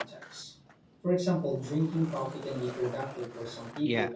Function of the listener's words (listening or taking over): taking over